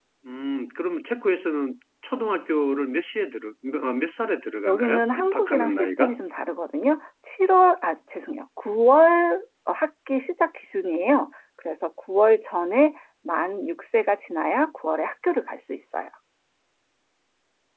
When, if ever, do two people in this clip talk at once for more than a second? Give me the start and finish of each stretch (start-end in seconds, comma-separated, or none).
4.7-6.2